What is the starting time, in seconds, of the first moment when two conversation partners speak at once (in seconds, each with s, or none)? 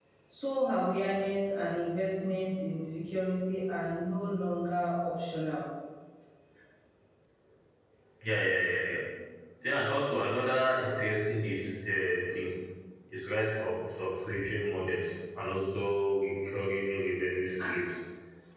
none